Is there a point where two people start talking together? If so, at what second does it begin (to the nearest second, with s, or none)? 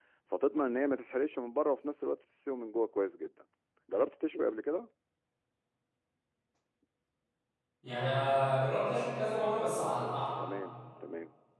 none